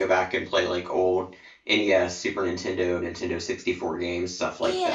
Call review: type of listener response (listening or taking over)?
taking over